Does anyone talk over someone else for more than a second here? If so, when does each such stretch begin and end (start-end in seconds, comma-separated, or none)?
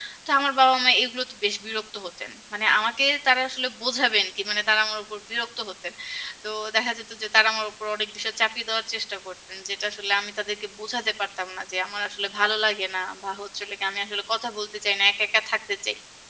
none